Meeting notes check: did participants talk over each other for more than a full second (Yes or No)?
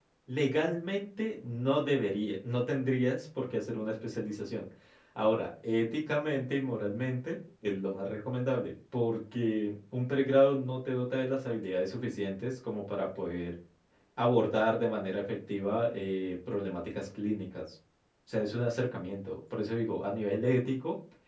No